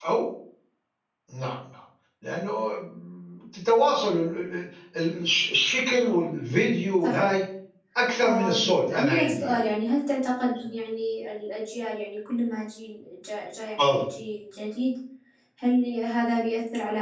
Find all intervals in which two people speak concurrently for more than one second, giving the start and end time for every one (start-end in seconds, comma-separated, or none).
8.2-9.6